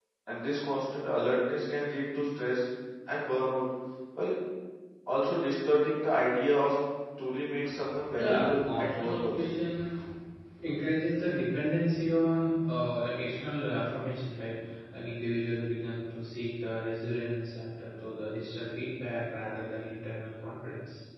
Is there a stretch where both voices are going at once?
Yes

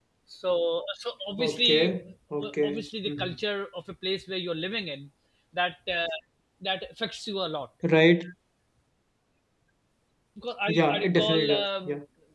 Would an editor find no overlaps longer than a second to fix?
No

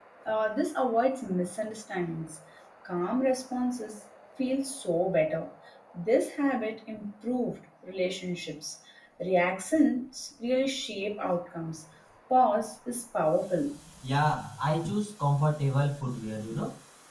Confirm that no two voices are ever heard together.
Yes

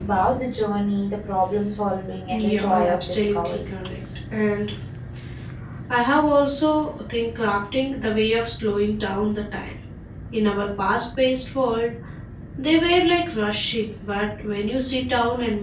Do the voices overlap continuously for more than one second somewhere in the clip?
Yes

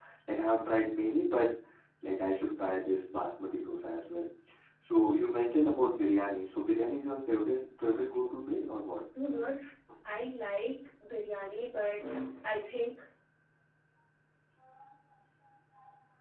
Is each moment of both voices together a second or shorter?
Yes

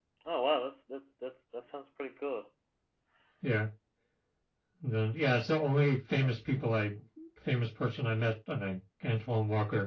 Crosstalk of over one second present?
No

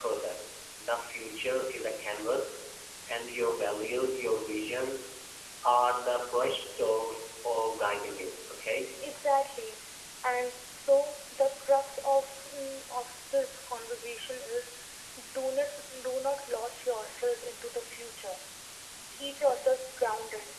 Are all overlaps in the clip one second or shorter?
Yes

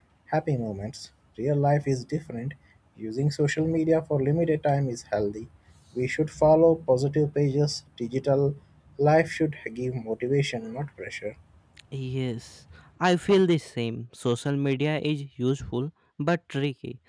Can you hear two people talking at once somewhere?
No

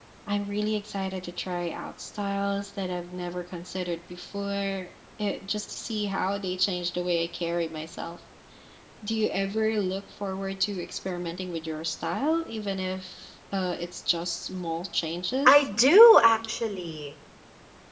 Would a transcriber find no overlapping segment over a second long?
Yes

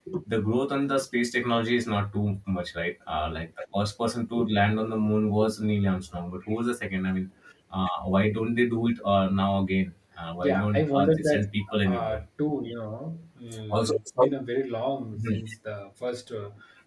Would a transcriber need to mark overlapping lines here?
Yes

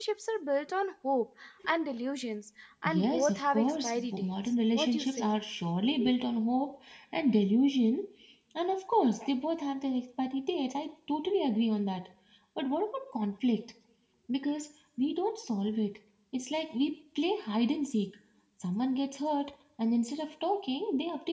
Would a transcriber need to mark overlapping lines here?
Yes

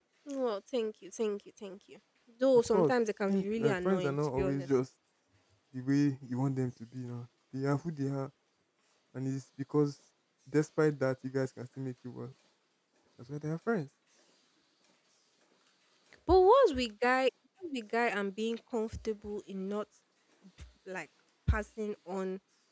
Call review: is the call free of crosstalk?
No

